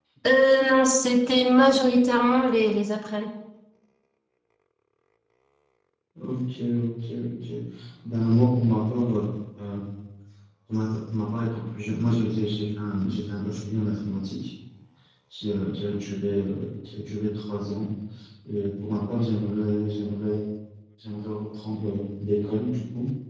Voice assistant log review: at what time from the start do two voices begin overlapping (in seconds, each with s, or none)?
none